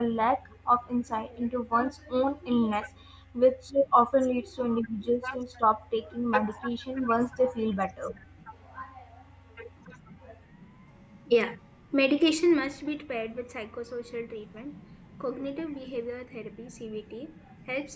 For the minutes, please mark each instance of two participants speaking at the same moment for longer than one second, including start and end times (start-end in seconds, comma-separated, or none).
none